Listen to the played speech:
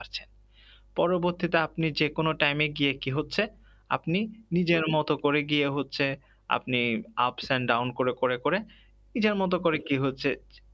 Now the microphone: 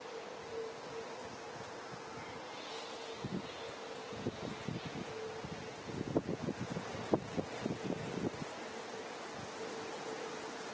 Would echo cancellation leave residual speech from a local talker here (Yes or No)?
No